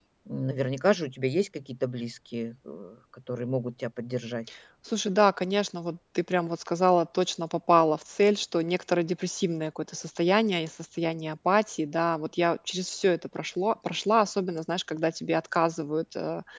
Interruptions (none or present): none